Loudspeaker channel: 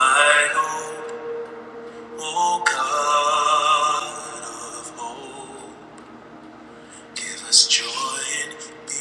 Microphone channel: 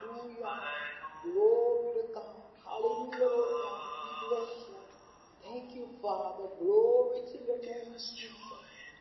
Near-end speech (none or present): present